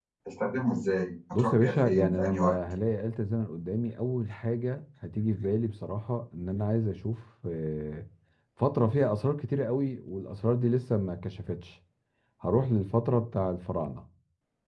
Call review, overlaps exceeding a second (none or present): present